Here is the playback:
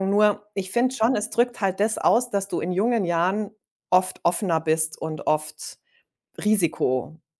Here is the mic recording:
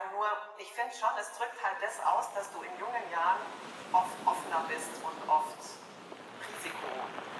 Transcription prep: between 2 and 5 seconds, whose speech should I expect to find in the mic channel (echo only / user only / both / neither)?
echo only